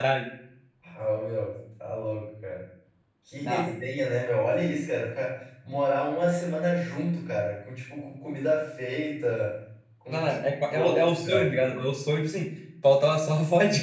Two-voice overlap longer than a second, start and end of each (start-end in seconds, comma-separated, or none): 10.1-11.6